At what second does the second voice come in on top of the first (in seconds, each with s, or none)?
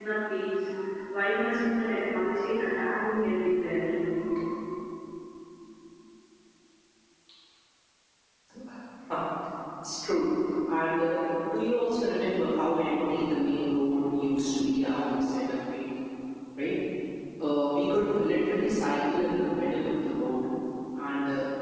none